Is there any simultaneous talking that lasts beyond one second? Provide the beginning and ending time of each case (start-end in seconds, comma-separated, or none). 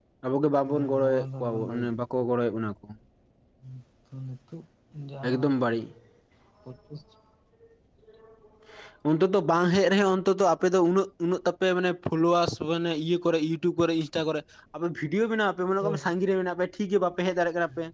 0.7-1.9